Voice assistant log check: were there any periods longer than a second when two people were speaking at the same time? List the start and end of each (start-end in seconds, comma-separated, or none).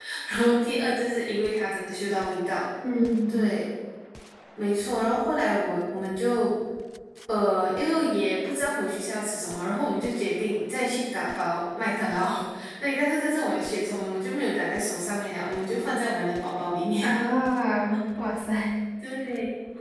none